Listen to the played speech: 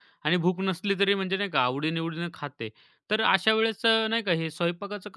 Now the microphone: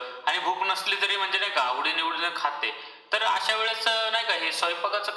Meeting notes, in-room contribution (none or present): none